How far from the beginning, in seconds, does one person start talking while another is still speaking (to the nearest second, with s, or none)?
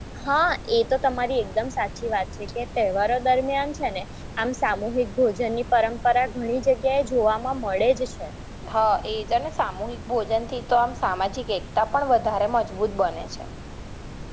none